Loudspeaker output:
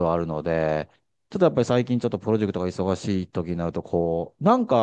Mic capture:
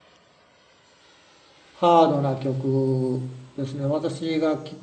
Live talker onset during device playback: 2 s

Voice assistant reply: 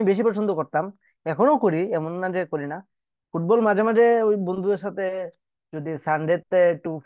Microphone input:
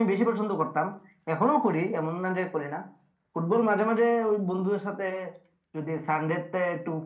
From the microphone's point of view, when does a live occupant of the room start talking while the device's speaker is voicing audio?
none

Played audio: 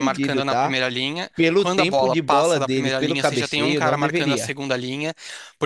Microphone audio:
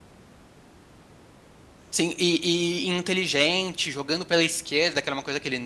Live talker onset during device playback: 2 s

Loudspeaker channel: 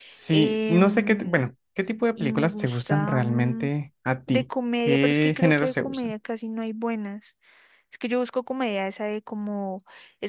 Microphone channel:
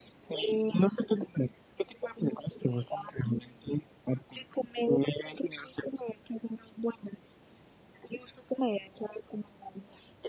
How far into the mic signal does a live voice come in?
none

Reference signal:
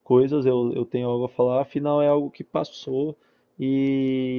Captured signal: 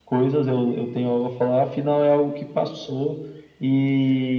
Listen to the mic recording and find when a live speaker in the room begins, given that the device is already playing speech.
none

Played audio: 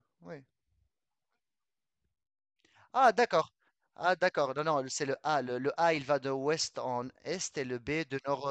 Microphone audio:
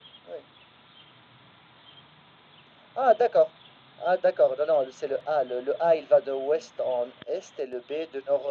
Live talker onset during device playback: none

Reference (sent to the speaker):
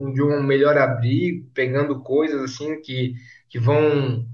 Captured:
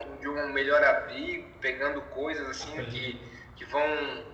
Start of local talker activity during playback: 3 s

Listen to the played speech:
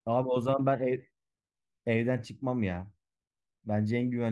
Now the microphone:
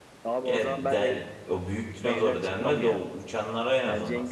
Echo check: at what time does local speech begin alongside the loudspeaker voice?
0 s

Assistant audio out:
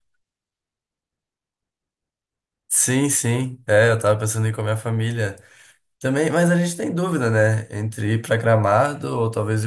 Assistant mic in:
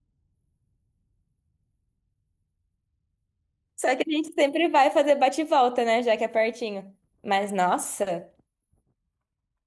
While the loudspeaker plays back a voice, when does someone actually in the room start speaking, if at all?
4 s

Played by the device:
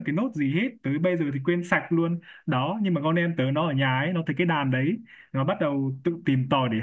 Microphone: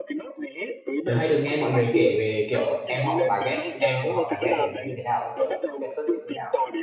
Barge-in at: 1 s

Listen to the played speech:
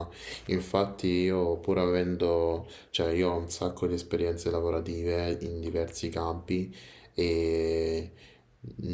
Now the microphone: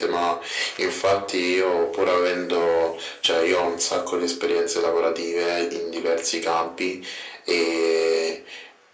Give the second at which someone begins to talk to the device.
none

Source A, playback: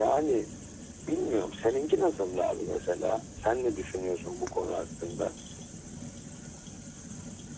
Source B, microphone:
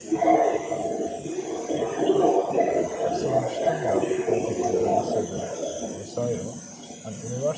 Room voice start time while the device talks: 3 s

